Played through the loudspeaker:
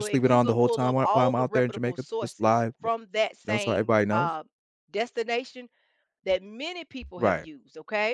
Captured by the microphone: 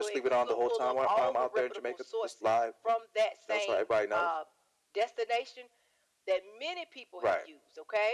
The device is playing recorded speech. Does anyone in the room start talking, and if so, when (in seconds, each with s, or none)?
none